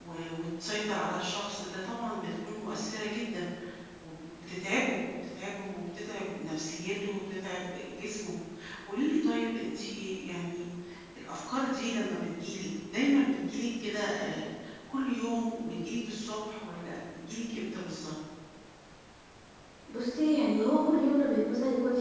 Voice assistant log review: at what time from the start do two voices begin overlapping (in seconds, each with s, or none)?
none